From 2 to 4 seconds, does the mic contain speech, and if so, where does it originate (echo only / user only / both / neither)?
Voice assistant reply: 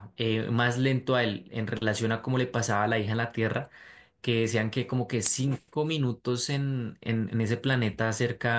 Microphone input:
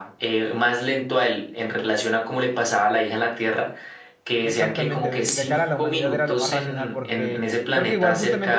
echo only